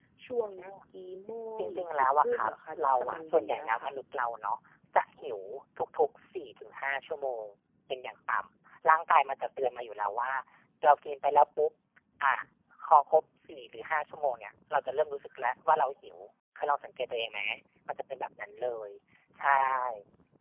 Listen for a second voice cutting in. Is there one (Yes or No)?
Yes